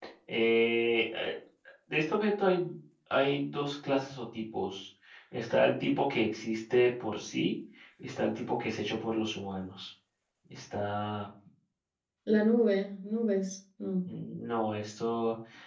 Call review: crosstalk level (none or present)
none